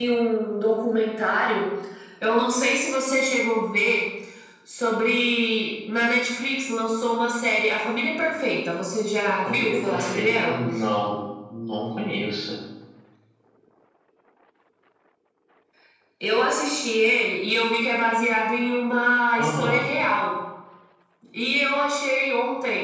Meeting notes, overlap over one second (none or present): present